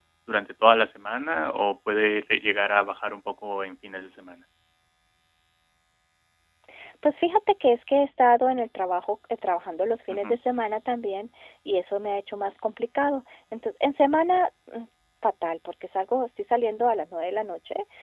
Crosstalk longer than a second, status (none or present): none